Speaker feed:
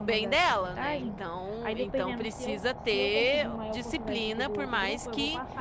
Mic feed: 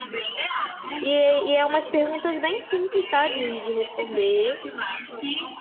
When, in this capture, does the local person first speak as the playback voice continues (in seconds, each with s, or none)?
1.0 s